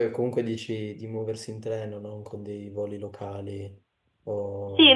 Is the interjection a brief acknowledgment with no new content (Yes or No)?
No